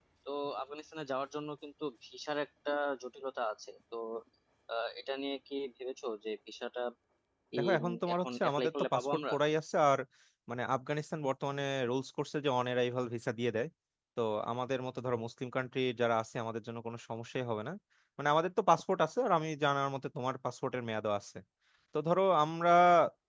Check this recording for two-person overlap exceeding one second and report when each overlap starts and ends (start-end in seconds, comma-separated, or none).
7.6-9.3